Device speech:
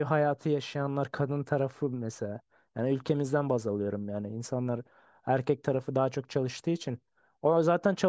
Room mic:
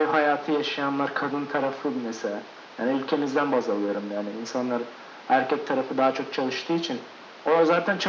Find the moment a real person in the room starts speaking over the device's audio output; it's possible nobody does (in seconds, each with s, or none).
none